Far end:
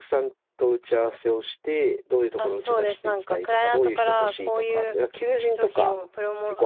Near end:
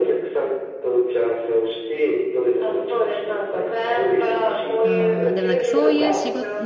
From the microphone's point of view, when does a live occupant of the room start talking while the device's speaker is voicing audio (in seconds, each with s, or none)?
4.8 s